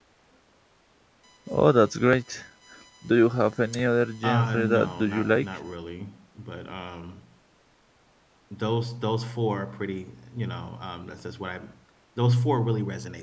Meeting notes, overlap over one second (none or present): present